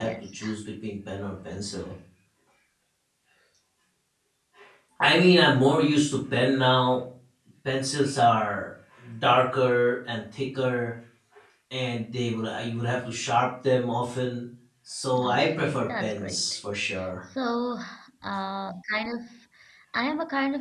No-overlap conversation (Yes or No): No